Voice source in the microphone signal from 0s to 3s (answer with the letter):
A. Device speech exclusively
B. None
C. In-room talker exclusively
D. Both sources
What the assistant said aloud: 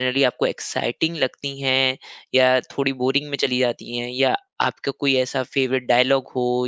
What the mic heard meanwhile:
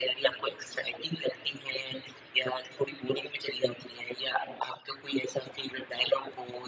A